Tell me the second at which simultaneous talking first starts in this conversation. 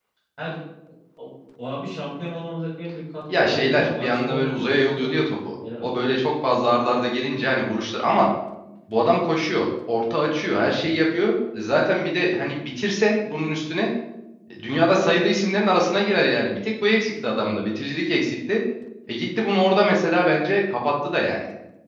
3.3 s

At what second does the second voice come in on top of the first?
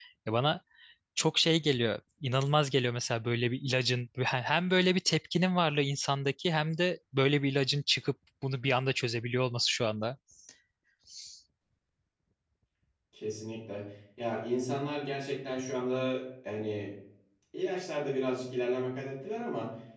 none

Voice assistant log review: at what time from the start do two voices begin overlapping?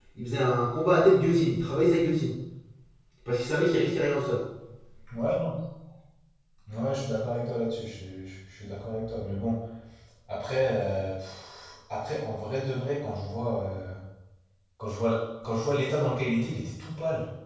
none

